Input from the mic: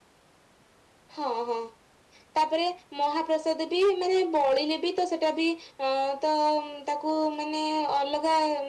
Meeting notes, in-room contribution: none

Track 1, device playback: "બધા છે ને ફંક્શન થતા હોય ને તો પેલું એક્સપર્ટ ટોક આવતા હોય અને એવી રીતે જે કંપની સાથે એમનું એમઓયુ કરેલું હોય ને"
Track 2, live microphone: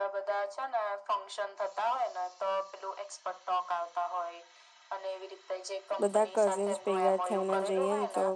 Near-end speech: present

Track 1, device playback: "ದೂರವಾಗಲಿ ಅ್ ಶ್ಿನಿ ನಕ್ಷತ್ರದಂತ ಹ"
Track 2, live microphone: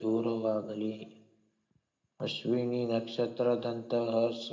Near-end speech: none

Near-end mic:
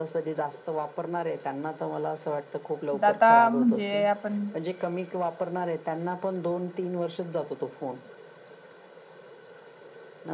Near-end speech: present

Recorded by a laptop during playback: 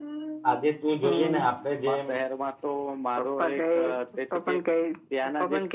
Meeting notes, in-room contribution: present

